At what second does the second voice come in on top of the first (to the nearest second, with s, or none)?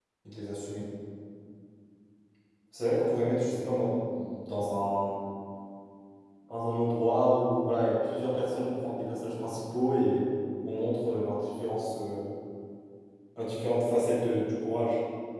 none